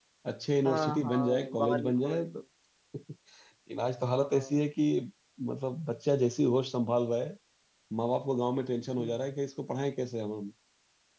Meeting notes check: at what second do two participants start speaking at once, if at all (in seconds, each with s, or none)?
0.6 s